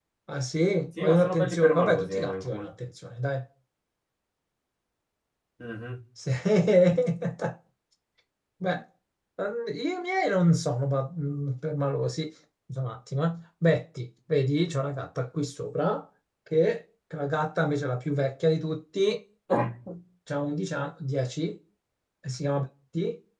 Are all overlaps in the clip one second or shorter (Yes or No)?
No